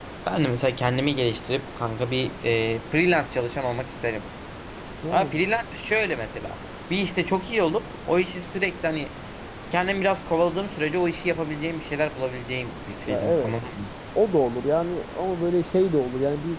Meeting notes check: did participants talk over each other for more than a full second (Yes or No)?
No